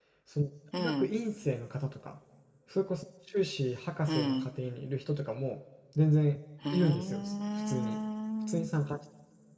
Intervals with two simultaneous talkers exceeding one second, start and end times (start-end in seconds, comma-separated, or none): 6.7-8.0